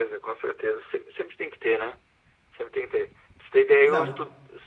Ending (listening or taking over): listening